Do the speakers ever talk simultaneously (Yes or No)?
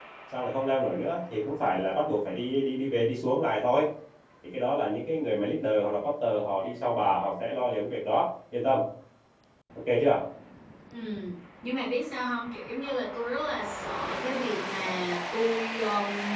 No